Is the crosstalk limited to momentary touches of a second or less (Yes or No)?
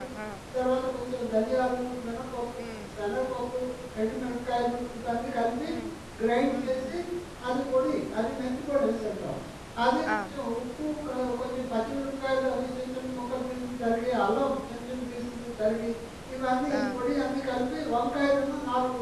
Yes